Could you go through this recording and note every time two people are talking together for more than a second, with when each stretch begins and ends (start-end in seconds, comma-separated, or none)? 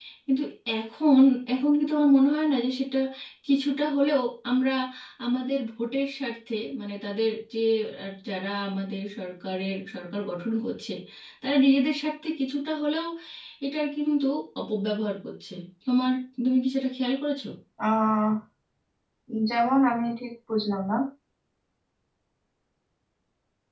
none